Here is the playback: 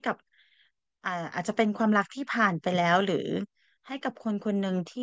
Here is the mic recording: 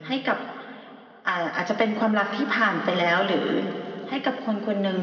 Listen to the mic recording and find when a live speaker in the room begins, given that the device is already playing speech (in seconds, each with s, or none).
none